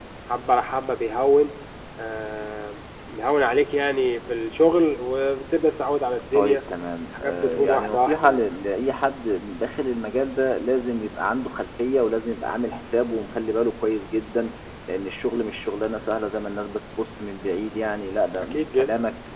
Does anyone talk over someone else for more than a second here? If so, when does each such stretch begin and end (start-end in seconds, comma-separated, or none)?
7.1-8.4